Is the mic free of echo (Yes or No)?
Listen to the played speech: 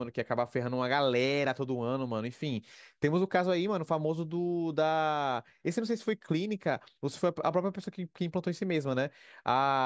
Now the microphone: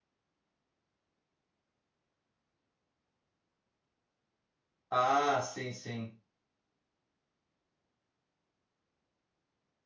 Yes